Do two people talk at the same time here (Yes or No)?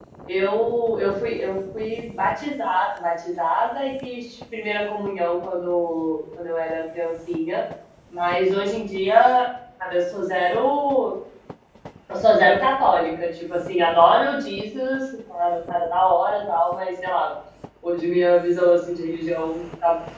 No